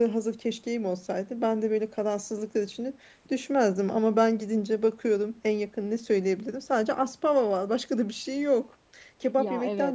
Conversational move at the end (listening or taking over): listening